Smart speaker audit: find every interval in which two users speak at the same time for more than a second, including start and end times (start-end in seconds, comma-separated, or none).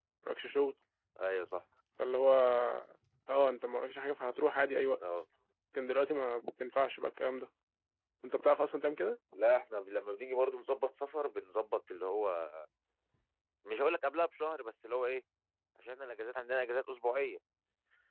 none